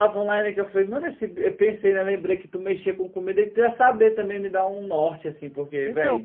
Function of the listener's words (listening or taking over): taking over